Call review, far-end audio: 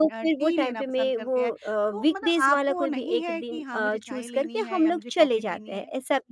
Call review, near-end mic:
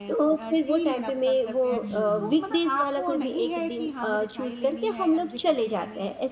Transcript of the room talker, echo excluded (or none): हुँ।